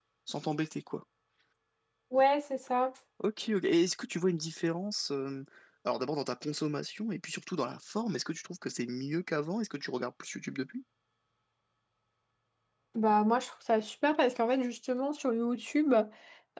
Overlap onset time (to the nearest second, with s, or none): none